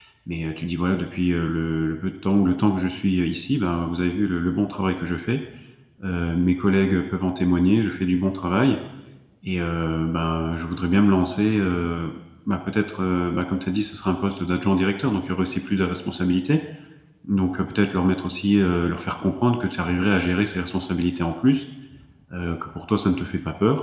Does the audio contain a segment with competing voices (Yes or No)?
No